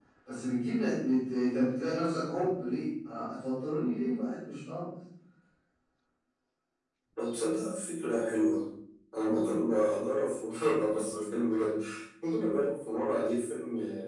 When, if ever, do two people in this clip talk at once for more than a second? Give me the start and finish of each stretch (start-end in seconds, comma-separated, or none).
none